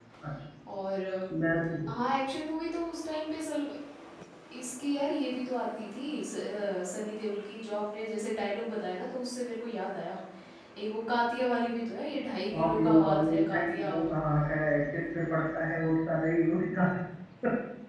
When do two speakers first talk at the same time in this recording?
12.5 s

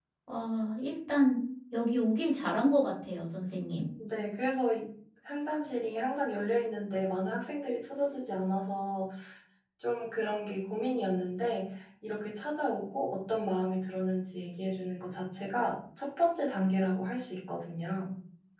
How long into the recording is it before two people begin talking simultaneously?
none

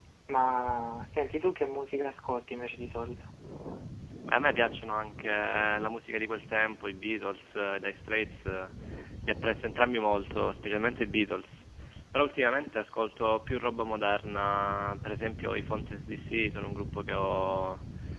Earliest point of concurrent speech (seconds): none

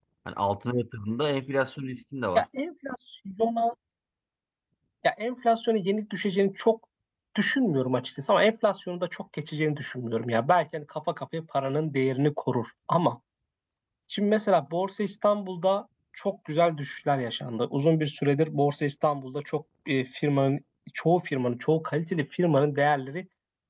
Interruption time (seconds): none

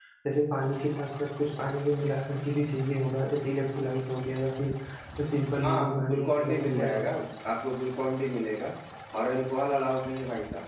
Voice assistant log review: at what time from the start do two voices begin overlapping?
5.6 s

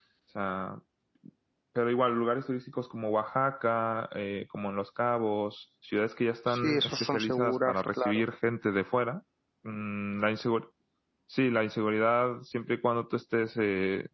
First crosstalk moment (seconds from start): 6.5 s

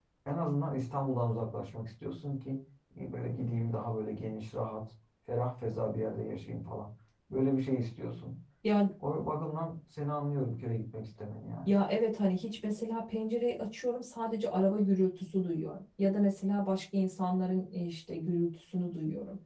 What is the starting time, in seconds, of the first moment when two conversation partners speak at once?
none

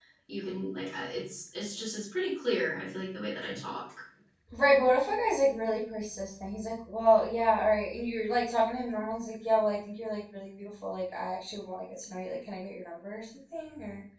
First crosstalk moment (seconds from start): none

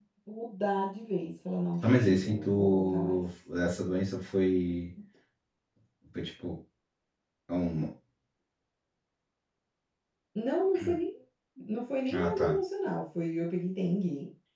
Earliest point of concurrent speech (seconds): 1.8 s

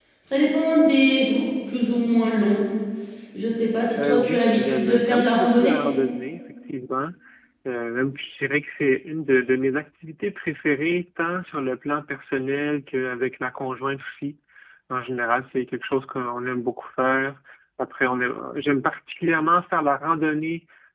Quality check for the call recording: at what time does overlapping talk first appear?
4.0 s

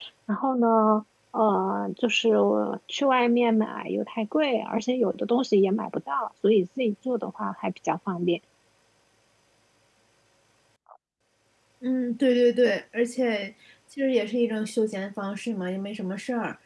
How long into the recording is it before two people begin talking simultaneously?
none

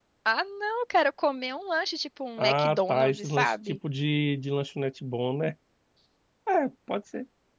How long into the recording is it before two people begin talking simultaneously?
2.4 s

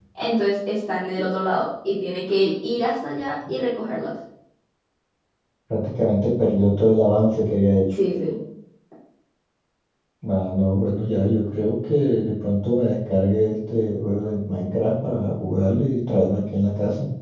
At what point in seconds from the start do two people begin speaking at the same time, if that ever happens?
none

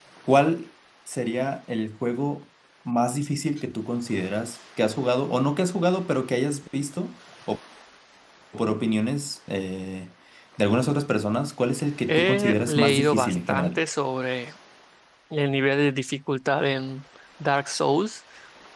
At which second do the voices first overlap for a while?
12.1 s

